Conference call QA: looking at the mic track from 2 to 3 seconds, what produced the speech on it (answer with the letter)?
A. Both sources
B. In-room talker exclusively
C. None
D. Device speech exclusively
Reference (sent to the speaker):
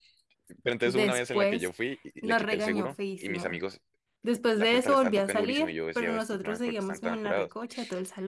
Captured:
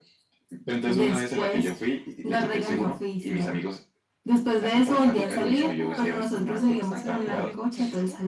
D